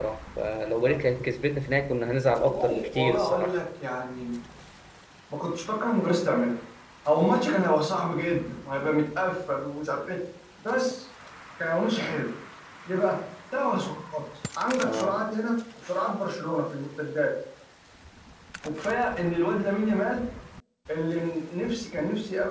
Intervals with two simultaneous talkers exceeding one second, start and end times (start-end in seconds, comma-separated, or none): 2.2-3.6